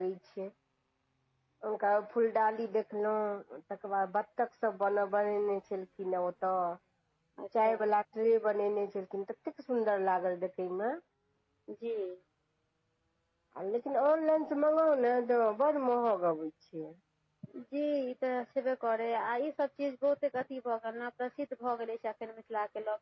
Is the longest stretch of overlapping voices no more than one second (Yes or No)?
Yes